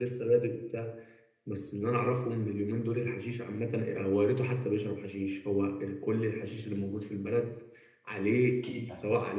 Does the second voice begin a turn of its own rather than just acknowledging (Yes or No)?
No